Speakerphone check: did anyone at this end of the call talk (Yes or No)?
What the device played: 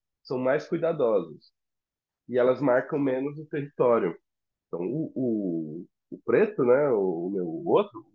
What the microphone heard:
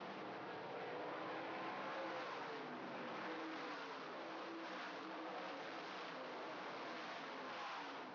No